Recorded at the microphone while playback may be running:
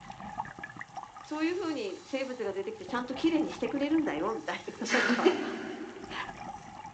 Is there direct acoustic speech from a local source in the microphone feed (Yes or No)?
Yes